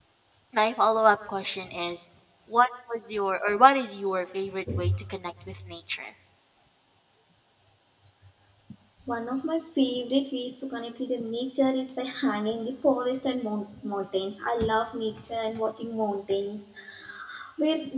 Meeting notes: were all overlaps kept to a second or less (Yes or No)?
Yes